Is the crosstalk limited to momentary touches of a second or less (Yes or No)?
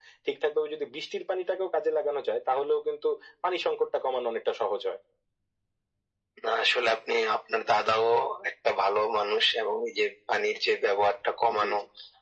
Yes